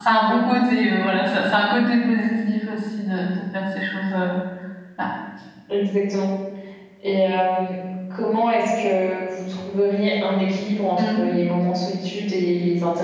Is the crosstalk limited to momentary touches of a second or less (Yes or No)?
Yes